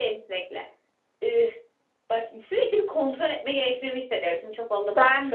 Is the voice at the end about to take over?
No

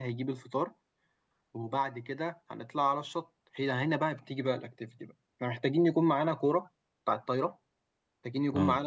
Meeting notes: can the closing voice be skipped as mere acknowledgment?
Yes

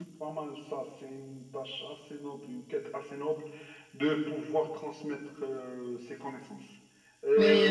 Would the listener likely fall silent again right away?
Yes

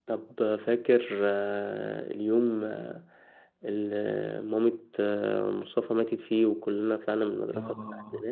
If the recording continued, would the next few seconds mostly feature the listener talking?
Yes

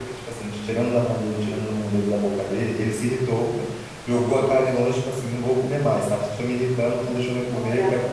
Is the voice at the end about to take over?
No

